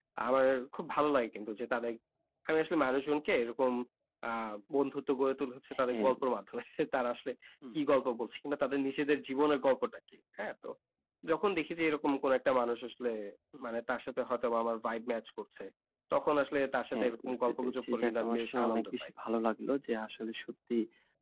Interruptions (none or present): present